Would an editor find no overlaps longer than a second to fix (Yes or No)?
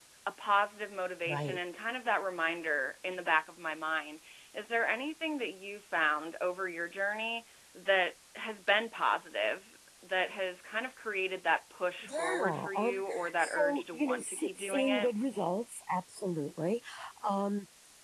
No